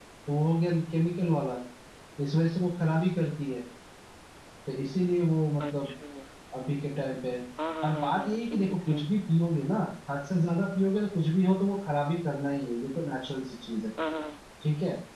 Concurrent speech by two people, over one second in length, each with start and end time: 7.8-9.0

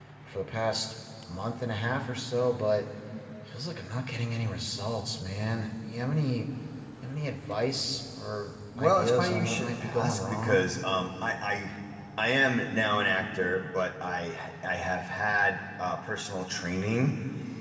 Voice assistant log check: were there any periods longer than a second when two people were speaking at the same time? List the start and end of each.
8.8-10.7

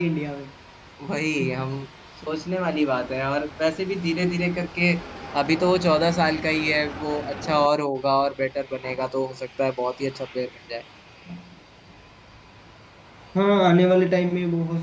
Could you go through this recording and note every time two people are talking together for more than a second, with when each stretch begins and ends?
none

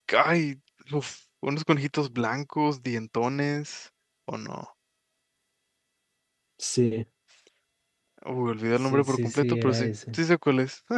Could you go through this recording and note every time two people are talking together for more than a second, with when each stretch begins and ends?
8.8-10.2

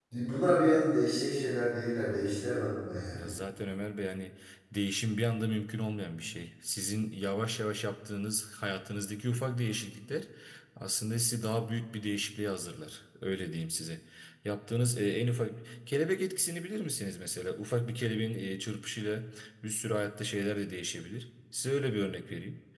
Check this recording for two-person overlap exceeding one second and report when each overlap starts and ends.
none

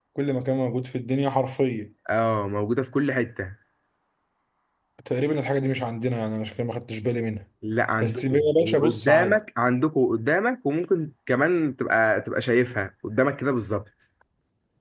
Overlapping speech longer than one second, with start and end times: 8.0-9.4

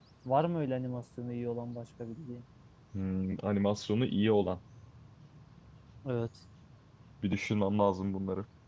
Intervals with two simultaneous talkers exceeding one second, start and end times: none

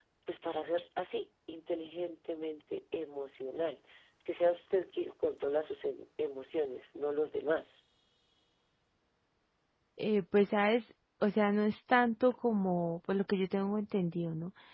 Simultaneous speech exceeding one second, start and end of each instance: none

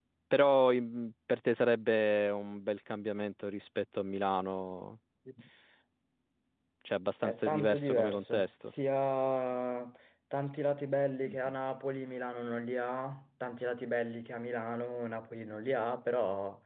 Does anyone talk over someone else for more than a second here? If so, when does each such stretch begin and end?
7.2-8.7

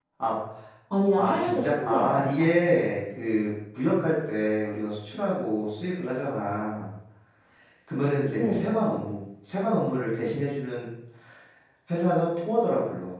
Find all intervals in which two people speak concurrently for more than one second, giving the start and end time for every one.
1.2-2.5

